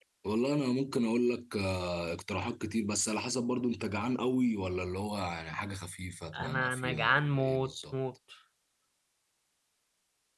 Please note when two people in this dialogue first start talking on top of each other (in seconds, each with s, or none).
6.3 s